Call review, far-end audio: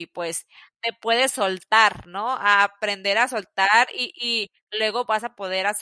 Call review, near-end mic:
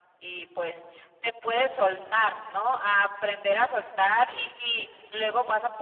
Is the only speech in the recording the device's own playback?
Yes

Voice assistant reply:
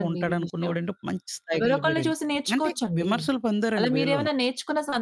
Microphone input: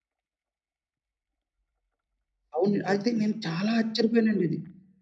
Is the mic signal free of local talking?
No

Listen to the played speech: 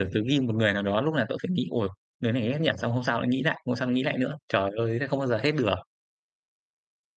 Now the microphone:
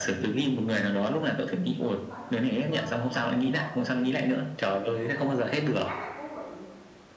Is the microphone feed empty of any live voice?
No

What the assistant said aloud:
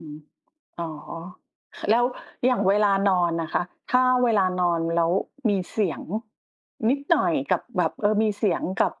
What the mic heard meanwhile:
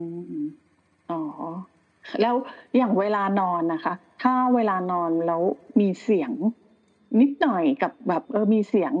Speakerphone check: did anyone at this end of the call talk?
No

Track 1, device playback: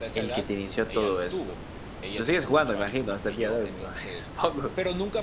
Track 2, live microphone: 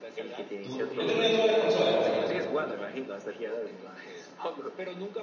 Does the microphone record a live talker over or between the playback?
Yes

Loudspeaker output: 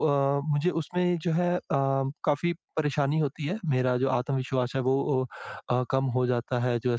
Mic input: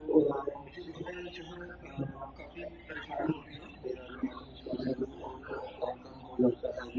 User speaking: No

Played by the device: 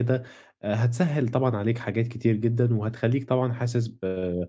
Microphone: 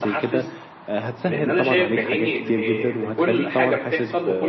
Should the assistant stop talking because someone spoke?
Yes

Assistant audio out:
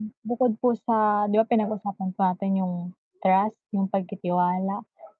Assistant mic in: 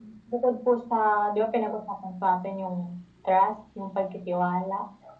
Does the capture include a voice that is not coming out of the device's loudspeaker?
No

